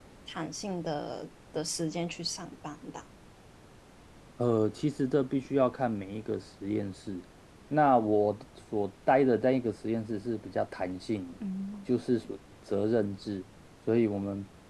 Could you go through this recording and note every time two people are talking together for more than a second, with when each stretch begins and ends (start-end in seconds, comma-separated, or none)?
none